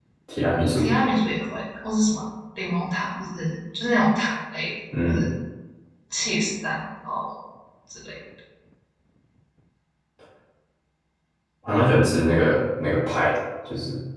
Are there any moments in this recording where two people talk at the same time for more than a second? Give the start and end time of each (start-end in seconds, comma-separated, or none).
none